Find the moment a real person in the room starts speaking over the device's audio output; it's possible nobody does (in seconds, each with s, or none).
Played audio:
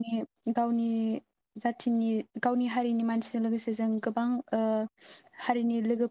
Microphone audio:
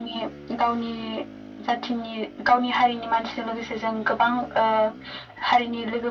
none